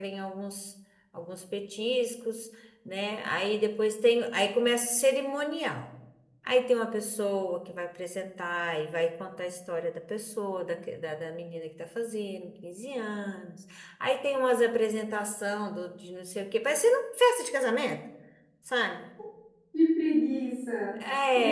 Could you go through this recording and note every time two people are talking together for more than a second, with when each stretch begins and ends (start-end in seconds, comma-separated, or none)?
none